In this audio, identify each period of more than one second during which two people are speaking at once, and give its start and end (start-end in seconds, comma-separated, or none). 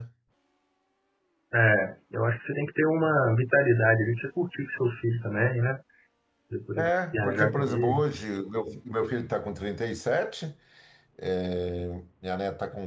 6.8-8.0